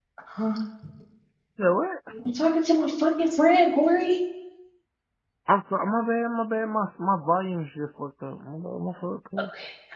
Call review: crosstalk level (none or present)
none